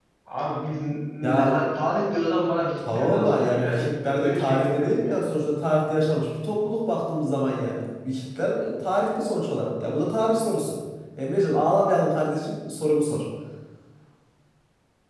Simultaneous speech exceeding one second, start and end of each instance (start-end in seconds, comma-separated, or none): 2.9-5.3